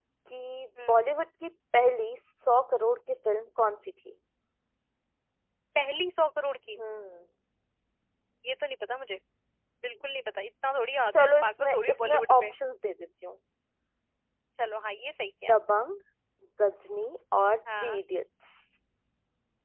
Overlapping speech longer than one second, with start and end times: 11.1-12.5

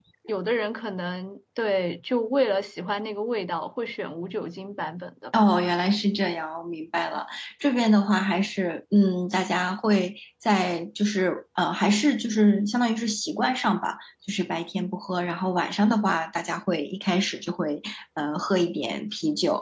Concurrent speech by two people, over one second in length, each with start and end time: none

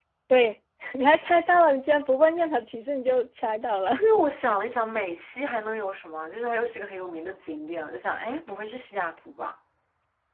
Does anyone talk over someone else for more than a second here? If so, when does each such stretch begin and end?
none

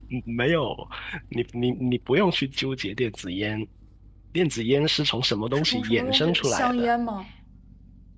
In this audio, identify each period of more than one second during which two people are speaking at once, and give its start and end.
5.5-6.9

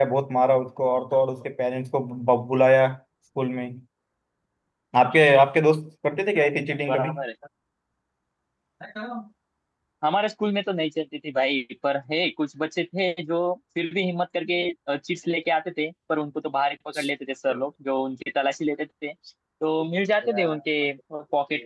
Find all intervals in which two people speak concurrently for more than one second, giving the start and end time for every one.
none

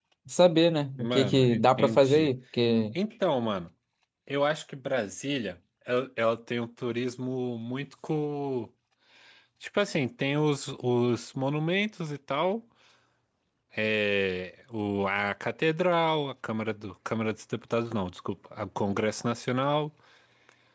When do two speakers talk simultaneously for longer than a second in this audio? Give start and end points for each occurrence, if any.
1.0-2.3

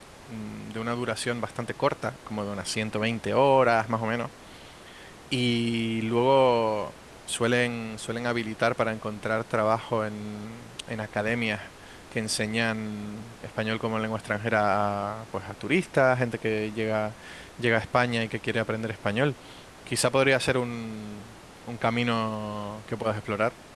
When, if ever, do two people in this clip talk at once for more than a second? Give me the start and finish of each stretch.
none

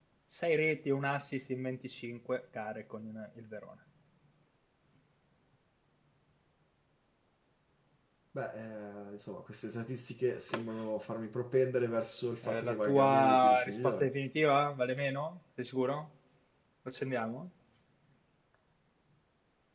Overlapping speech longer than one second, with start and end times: 12.5-14.1

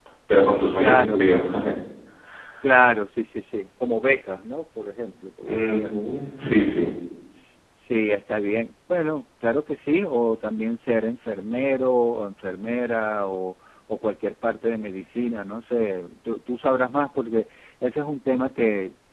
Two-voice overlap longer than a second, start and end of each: none

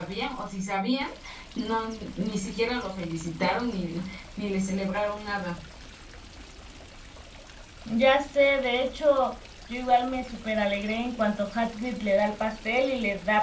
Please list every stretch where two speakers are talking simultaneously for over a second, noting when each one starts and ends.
none

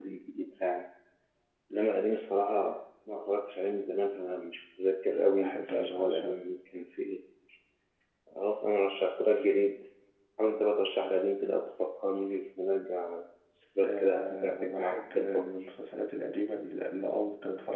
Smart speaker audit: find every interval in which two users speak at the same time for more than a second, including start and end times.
5.1-6.4, 13.8-15.4

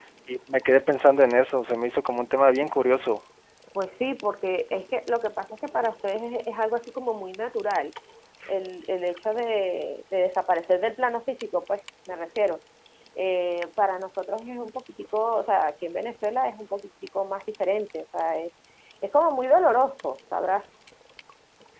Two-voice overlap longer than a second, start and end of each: none

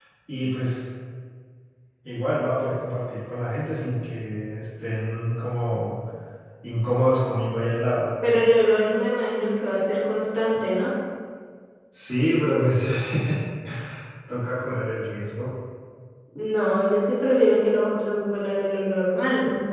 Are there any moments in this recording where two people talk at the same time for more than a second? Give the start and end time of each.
none

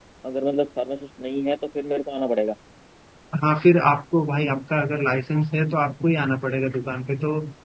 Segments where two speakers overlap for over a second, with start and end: none

